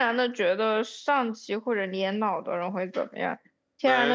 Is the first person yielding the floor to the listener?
No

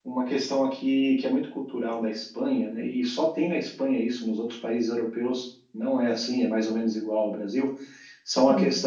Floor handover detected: No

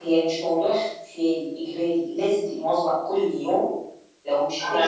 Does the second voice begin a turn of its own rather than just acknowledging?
No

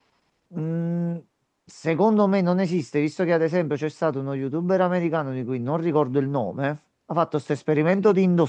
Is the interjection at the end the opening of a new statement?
No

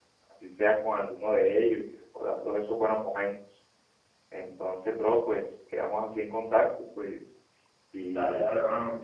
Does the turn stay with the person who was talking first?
No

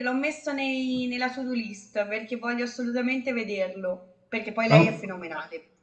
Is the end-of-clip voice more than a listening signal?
No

